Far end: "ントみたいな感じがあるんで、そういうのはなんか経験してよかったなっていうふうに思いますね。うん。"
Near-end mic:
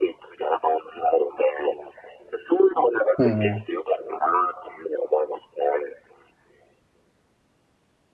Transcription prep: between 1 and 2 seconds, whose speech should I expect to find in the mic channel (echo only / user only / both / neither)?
echo only